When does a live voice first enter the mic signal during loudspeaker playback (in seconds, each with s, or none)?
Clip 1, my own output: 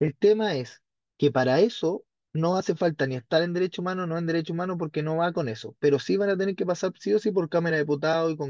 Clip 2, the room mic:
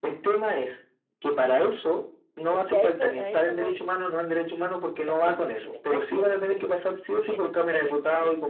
2.5 s